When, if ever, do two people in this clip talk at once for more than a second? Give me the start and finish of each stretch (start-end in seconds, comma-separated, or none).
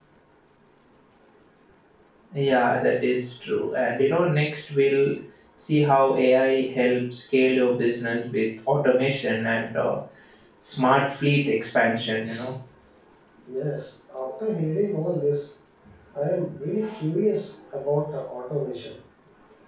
none